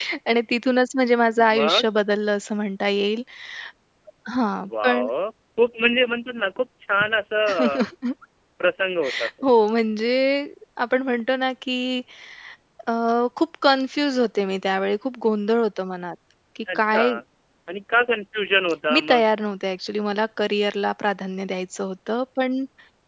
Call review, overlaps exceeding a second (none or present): none